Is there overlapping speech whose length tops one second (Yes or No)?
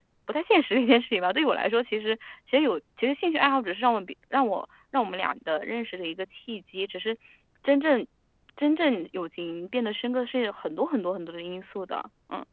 No